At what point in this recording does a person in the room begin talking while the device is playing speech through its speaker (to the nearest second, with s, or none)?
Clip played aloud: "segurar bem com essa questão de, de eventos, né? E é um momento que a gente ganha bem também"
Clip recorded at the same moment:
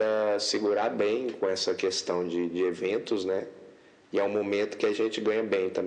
none